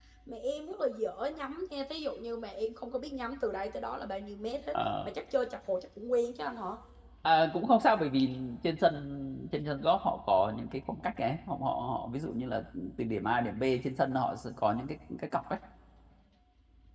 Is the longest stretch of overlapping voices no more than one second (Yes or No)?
Yes